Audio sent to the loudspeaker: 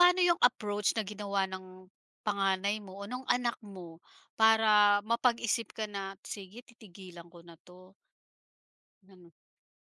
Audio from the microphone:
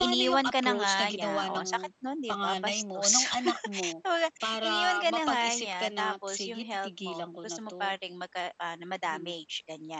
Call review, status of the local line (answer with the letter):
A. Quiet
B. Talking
B